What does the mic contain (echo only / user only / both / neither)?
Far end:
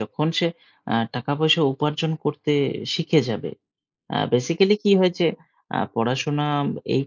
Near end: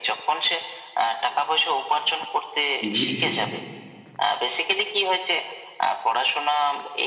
both